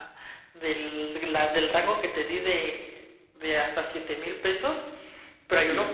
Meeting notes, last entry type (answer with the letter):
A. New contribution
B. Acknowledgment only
B